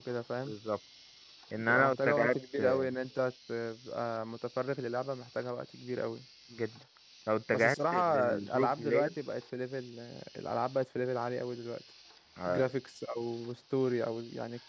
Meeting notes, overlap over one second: present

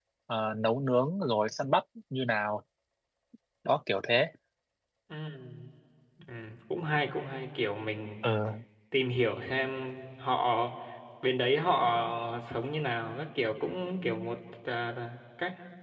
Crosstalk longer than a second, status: none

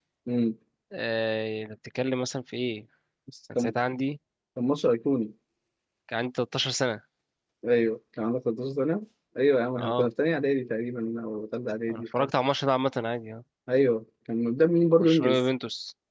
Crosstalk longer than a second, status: none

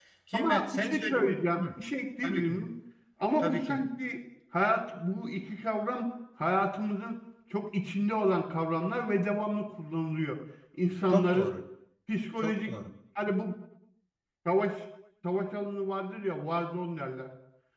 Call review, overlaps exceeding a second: present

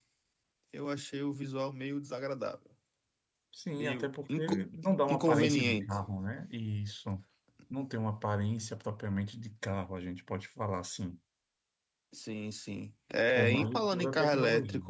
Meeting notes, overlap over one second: present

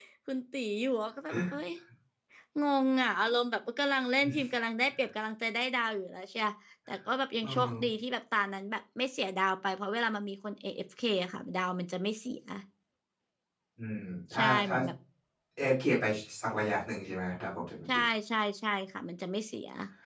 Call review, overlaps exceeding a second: none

